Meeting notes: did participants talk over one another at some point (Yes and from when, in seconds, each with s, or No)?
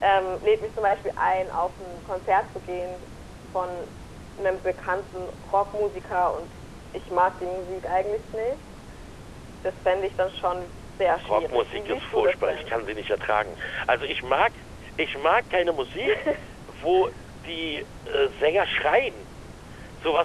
Yes, from 11.2 s